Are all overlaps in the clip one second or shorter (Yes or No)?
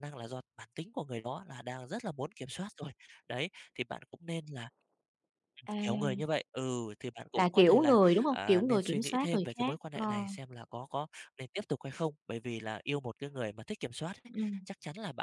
No